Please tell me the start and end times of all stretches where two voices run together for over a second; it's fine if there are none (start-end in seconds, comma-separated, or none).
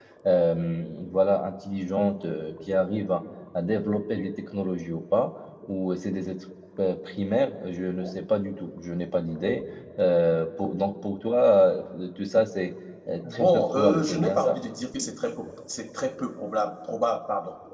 13.3-14.6